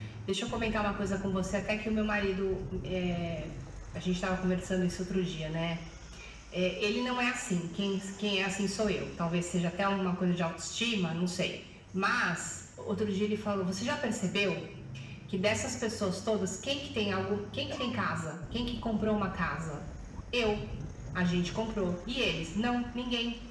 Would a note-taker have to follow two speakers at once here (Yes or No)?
No